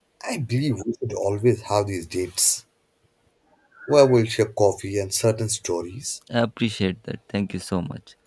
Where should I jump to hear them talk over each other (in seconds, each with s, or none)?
none